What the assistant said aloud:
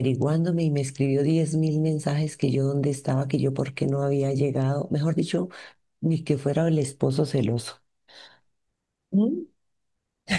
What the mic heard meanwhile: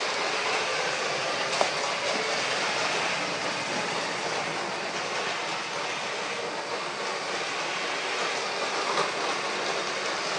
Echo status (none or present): none